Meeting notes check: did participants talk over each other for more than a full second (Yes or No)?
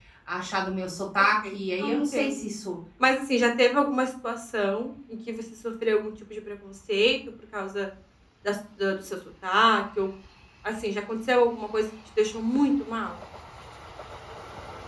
Yes